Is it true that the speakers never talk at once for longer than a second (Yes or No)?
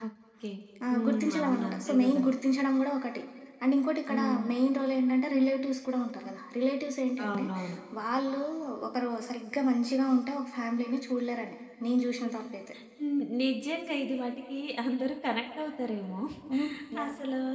No